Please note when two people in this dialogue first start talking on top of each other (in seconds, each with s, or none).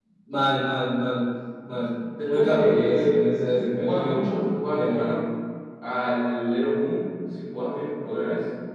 2.2 s